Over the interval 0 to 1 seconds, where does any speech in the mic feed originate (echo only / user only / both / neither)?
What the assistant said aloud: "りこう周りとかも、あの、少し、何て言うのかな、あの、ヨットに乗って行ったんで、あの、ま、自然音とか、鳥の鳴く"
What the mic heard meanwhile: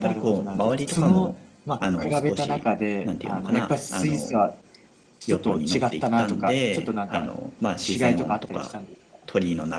both